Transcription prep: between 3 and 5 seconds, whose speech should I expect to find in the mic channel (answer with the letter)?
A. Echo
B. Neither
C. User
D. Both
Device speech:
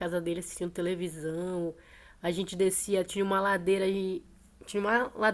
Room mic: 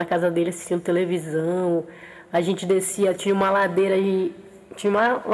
A